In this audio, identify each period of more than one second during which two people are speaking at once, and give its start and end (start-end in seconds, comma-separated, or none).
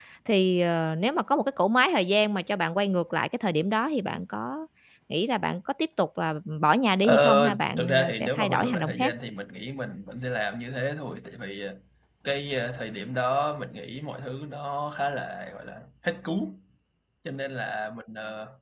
7.0-9.1